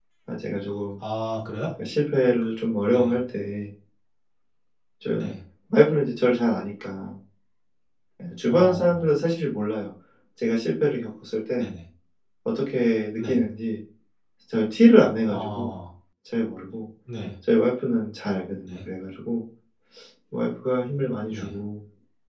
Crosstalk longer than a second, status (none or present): none